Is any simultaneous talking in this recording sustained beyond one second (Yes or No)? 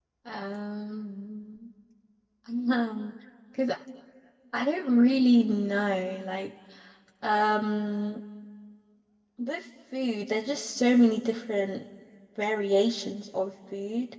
No